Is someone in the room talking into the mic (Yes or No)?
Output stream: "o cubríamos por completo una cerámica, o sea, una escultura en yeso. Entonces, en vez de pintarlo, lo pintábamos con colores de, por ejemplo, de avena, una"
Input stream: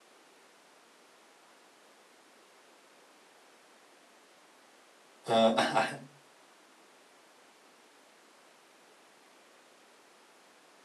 Yes